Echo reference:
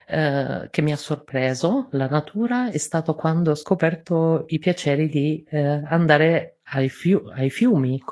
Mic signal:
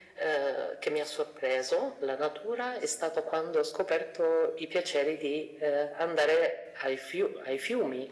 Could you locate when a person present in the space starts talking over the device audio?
none

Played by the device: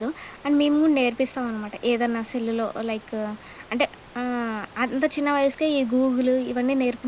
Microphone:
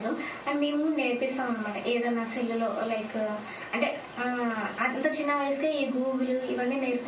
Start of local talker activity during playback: none

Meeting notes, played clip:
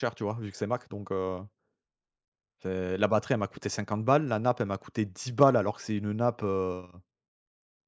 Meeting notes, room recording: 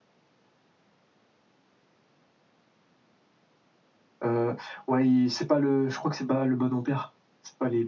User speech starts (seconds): 4 s

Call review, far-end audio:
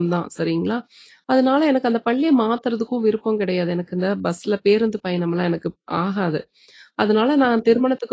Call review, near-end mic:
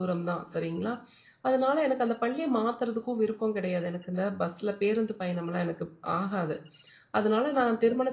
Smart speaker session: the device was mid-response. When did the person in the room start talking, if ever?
none

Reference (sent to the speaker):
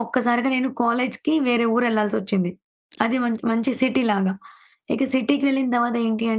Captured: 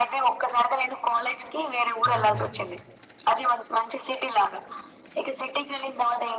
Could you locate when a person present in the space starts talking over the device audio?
2 s

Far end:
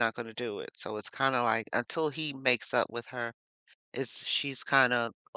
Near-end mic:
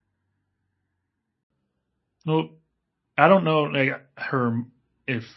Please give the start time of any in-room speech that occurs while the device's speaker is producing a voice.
2 s

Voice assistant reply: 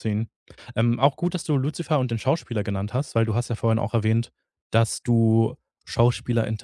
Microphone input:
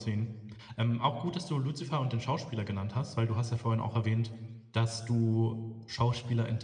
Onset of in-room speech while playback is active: none

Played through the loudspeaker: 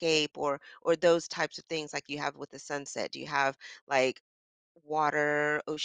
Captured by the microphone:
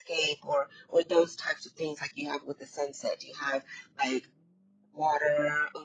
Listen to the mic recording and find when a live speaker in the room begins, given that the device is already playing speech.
none

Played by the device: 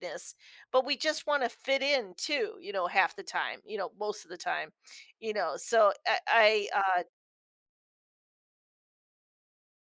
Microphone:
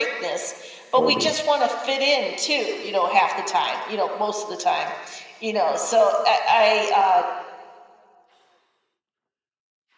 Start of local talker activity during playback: 1 s

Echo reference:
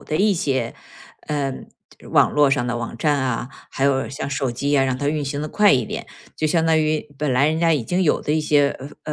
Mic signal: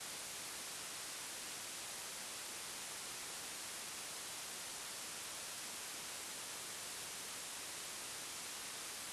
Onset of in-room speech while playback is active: none

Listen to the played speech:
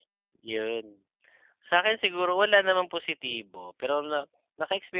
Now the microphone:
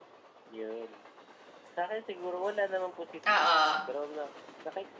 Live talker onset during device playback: 3 s

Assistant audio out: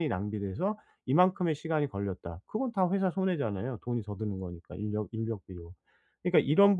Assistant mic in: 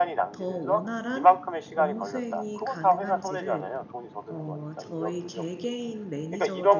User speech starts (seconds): 0 s

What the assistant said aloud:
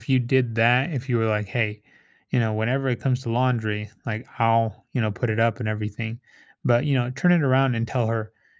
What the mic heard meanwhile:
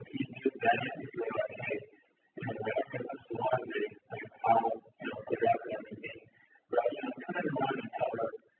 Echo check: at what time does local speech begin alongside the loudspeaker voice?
none

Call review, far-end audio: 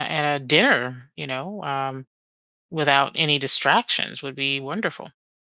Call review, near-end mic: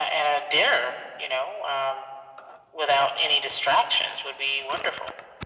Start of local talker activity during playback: none

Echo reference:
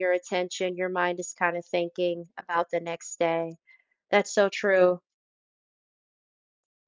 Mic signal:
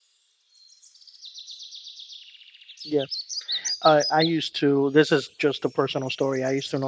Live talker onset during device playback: 3 s

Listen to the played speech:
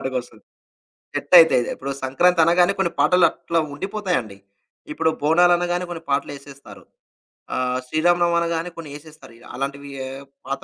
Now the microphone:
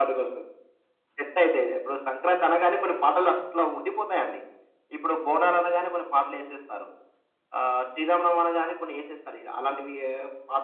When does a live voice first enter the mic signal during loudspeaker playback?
none

